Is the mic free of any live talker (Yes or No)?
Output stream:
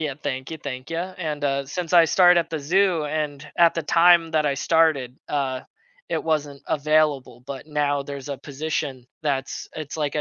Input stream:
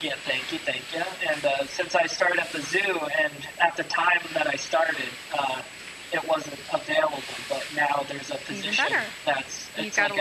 No